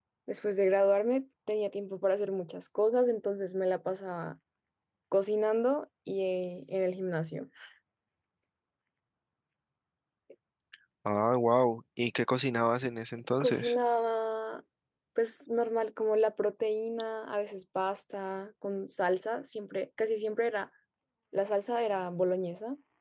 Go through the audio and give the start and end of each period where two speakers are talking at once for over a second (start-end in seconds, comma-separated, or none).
none